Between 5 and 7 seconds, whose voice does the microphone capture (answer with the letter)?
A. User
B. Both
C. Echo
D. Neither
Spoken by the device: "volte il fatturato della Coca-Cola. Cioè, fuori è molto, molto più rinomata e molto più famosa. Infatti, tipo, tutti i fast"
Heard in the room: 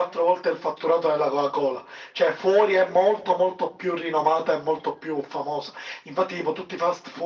C